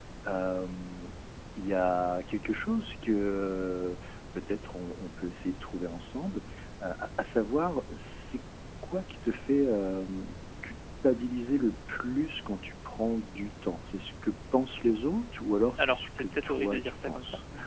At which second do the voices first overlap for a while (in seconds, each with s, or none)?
15.8 s